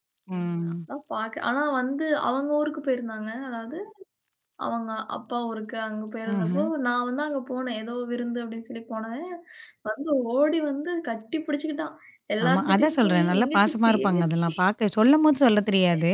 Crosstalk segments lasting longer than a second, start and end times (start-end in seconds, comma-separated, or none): 12.5-14.5